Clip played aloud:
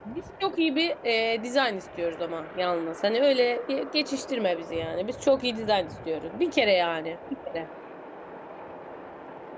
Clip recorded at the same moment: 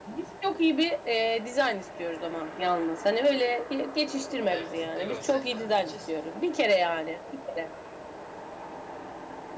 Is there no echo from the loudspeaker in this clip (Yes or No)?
No